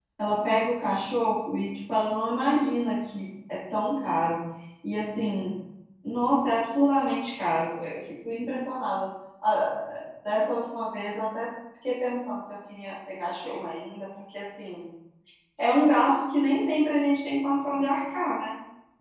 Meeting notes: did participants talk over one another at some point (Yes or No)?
No